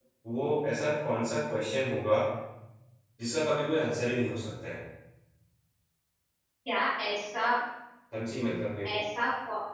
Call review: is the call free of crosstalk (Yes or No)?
Yes